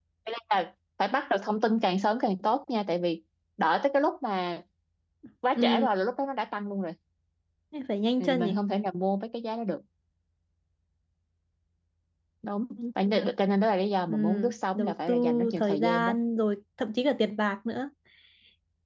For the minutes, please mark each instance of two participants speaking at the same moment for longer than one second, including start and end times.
14.8-16.1

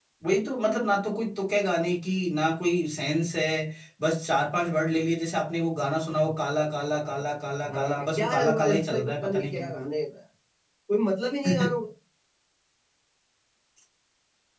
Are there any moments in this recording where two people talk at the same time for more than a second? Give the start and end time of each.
7.7-9.7

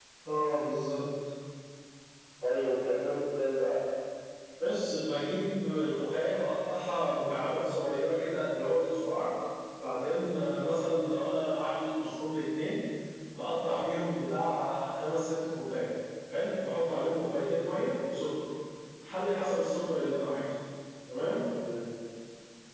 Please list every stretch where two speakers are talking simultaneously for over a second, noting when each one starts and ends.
none

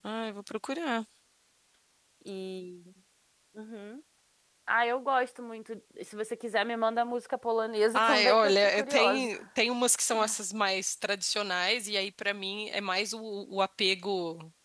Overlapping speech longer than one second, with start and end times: 7.9-9.3

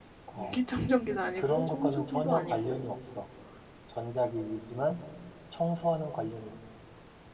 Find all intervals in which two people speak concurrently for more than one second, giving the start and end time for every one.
1.4-2.9

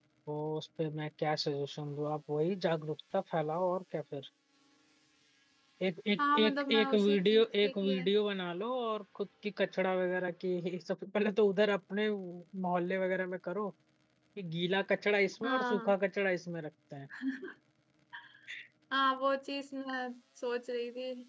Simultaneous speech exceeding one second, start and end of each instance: 6.2-8.0

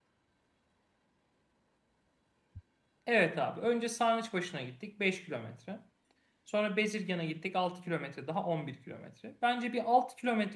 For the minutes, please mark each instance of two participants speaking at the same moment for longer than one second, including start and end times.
none

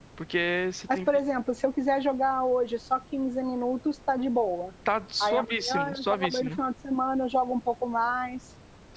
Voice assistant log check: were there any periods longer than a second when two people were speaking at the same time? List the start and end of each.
5.2-6.5

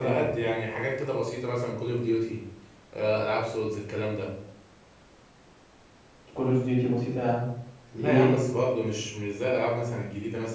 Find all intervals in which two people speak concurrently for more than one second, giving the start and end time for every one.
none

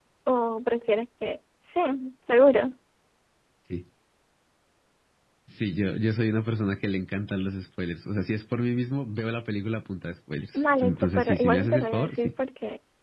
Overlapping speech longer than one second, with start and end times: 10.5-12.3

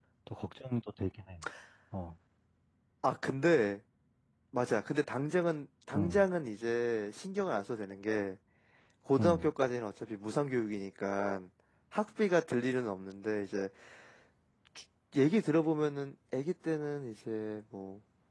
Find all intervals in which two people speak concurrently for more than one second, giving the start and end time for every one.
none

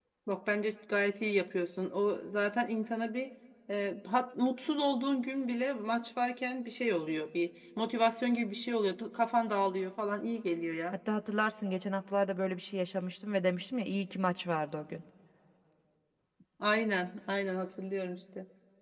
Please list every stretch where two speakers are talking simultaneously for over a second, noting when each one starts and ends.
none

